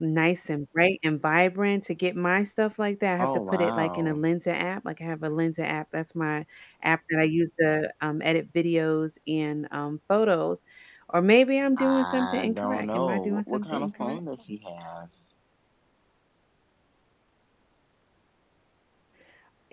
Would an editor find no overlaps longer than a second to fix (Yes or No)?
No